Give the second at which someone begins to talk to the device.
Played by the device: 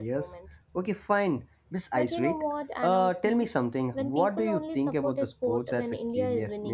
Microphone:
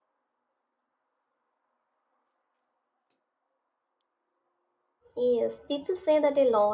5.2 s

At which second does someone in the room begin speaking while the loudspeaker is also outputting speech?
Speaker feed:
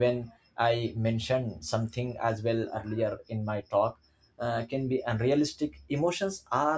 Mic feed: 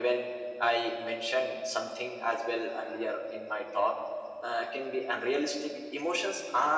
none

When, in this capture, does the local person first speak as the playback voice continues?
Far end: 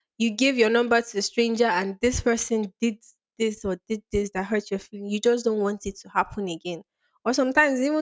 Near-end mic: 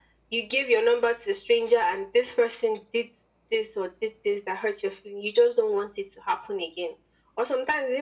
none

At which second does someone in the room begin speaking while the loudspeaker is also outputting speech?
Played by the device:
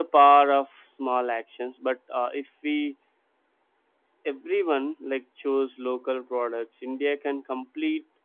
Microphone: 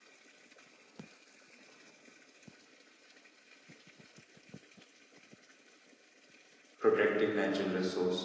6.8 s

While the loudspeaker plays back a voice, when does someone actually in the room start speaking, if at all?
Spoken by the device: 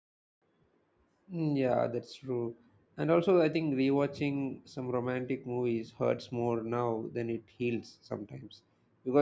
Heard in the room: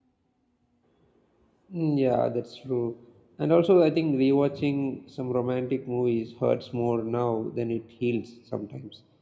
none

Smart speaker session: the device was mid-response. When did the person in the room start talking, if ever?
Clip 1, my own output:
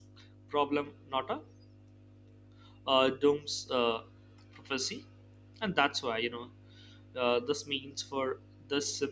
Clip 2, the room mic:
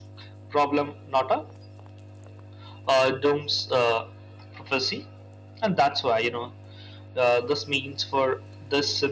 none

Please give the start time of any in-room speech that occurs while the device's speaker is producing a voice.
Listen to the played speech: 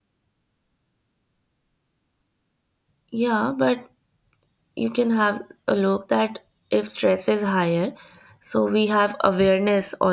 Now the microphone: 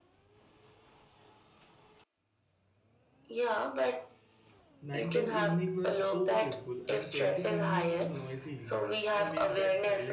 4.8 s

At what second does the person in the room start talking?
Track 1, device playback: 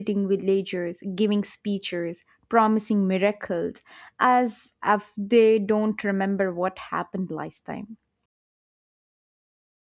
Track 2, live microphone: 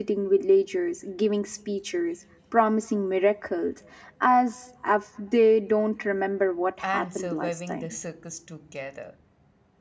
6.8 s

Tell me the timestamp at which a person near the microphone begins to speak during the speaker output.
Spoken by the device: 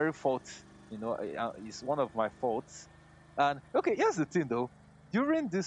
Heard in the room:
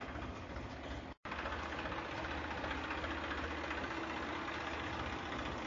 none

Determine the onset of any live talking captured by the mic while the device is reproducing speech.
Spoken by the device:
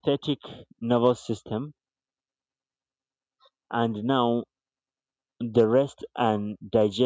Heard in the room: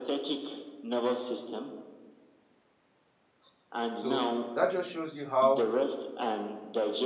4.0 s

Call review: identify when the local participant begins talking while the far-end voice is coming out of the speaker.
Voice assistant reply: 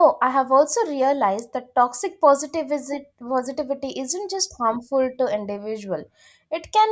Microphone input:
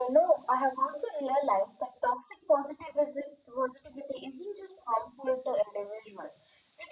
none

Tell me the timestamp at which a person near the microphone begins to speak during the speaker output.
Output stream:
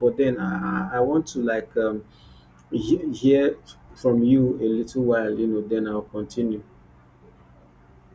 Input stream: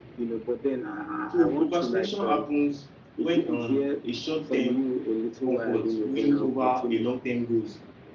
1.3 s

